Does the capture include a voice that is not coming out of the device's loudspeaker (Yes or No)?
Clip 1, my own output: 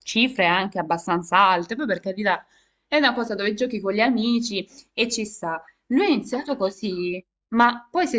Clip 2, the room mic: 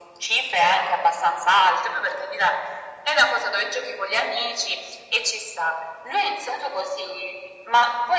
No